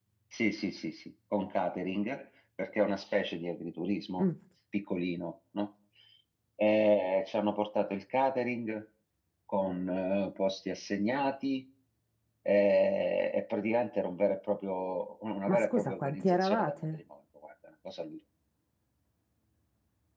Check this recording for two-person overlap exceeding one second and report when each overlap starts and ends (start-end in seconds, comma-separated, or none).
15.5-17.0